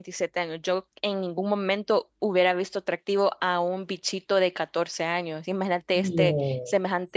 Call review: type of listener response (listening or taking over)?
listening